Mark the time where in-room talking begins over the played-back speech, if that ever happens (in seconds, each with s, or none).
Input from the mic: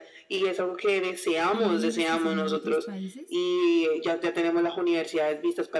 1.5 s